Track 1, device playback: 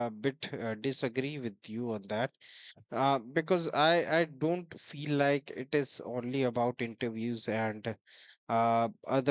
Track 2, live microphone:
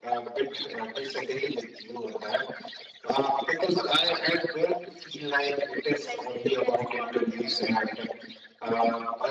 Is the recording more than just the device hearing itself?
Yes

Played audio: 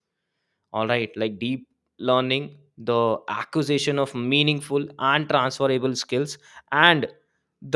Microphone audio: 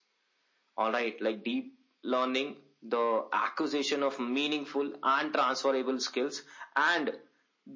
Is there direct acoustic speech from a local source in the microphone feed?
No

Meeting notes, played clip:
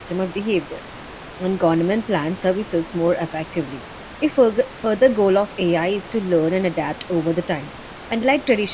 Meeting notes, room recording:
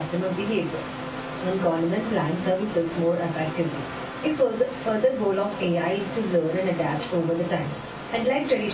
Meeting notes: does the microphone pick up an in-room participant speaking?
No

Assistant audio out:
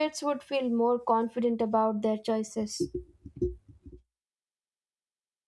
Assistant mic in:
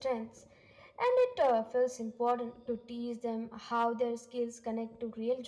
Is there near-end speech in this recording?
Yes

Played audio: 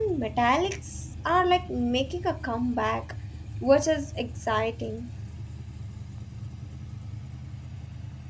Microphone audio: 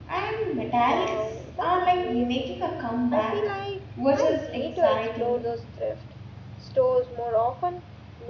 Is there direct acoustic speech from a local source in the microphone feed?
Yes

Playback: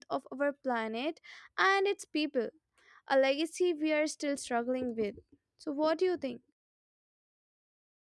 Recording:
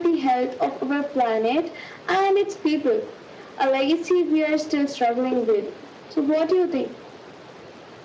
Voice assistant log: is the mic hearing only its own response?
Yes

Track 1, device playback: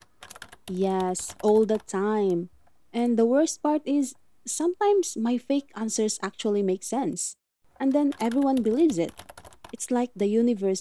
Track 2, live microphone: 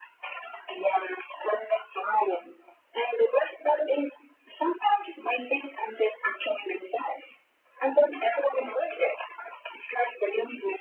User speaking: No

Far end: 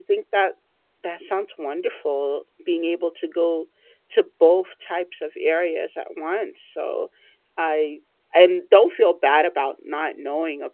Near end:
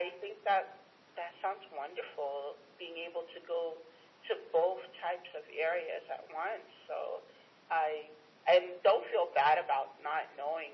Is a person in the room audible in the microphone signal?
No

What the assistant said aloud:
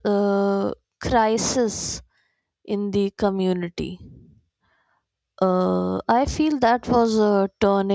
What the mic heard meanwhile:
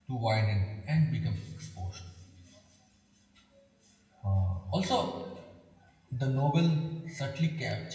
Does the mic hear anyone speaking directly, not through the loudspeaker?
Yes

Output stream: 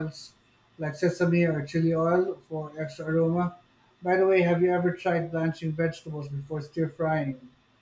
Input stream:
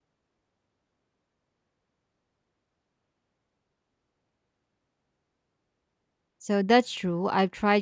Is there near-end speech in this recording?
Yes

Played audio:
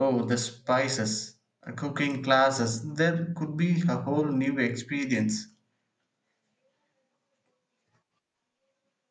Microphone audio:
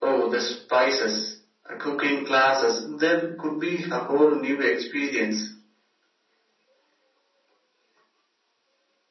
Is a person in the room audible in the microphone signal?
No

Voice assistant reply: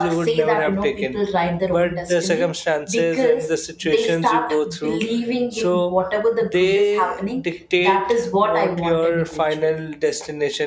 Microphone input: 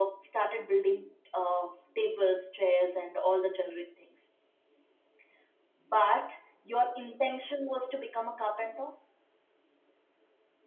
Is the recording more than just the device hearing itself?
Yes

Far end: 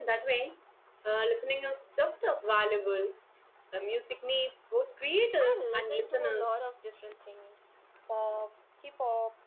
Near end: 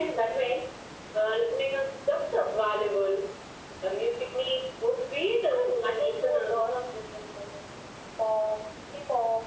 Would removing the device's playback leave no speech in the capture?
Yes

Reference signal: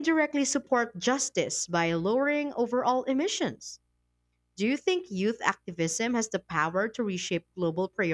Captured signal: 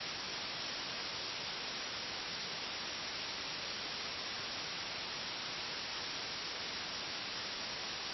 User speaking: No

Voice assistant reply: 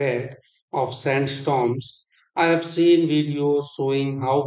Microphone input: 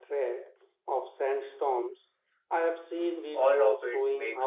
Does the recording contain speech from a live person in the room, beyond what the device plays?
Yes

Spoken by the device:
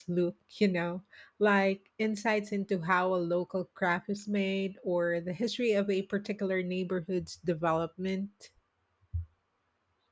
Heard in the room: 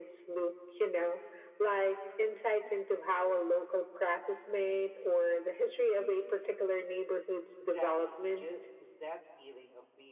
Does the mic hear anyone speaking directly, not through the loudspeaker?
Yes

